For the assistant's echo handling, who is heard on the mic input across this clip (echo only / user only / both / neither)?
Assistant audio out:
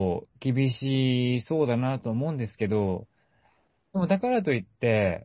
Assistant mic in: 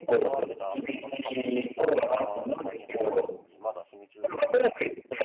both